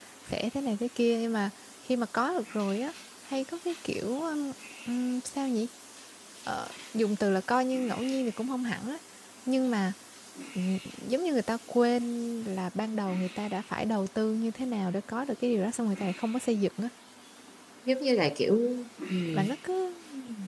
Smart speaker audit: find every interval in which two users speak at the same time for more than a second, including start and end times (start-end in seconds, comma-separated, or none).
none